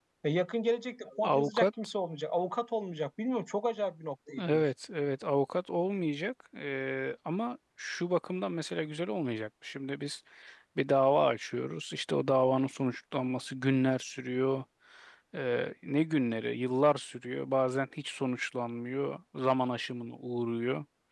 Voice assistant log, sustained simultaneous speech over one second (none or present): none